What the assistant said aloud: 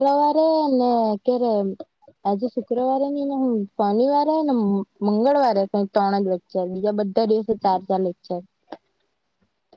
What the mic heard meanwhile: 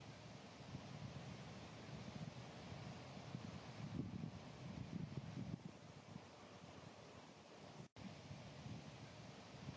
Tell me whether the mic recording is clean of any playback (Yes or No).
Yes